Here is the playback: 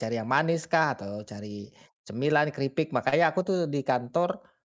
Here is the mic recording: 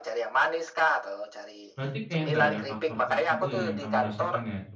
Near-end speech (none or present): present